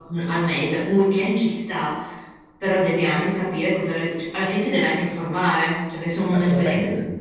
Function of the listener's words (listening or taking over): taking over